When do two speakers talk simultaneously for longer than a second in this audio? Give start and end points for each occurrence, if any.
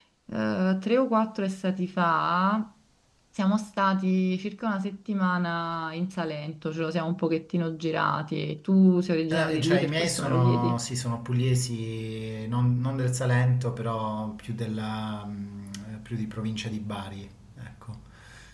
9.3-10.8

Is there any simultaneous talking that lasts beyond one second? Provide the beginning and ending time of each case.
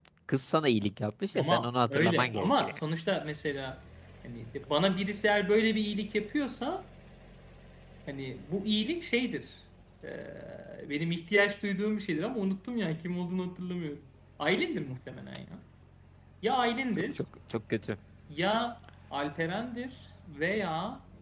1.3-2.8

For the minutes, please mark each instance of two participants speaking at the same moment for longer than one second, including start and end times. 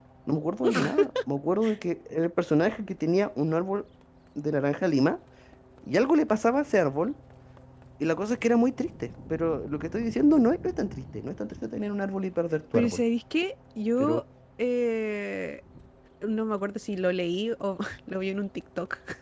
none

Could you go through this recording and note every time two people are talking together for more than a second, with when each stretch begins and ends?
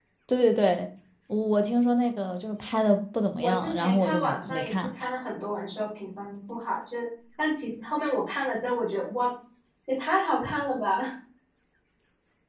3.4-4.8

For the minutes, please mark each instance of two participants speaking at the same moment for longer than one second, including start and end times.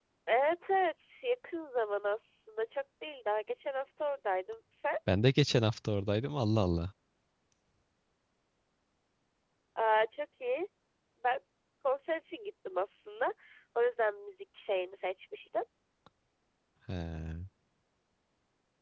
none

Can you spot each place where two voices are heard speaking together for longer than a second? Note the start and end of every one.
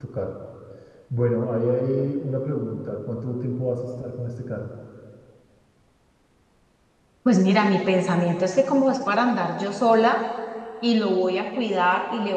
none

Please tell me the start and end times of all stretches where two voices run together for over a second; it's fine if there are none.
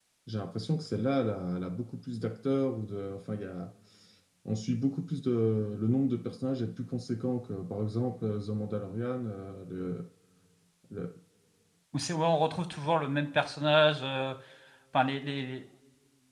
none

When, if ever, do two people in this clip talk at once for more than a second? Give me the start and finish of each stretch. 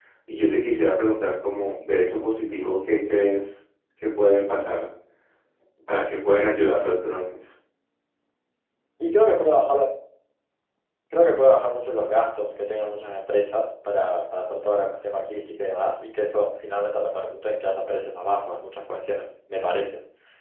none

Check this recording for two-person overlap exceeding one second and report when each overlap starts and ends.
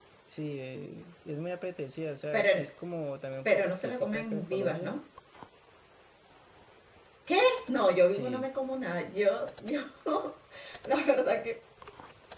3.4-5.0

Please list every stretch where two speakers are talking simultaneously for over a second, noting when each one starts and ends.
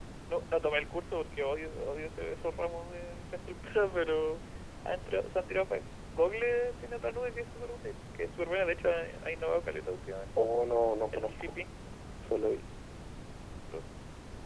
none

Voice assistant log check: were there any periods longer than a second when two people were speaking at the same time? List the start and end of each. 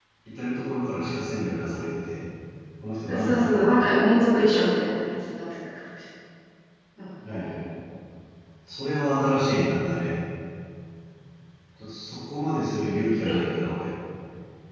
3.1-4.4

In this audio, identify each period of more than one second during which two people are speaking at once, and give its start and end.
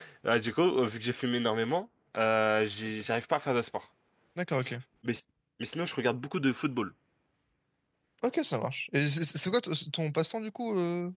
none

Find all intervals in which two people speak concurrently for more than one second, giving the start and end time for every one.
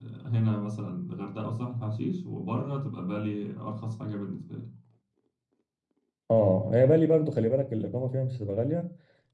none

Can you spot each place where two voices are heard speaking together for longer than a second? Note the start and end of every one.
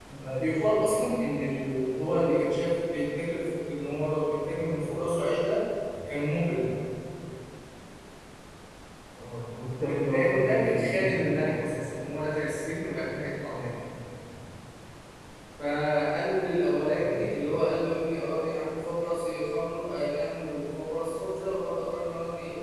9.8-11.8

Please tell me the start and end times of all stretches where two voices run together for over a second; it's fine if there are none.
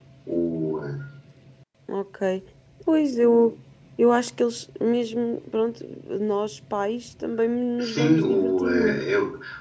7.8-9.0

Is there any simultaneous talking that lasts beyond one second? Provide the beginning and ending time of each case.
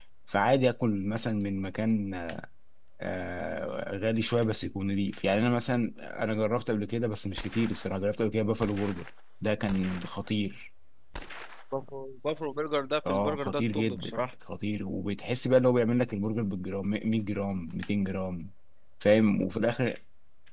13.1-14.3

